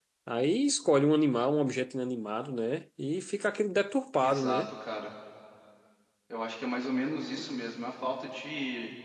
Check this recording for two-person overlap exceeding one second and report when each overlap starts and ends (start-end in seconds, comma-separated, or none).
none